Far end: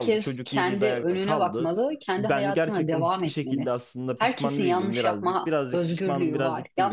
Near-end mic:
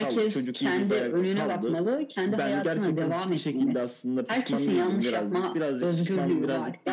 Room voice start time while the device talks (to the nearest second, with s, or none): none